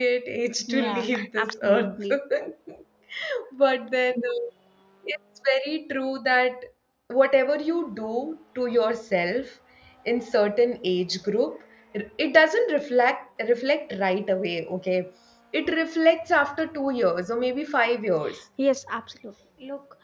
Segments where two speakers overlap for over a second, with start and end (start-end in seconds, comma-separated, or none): 0.7-2.0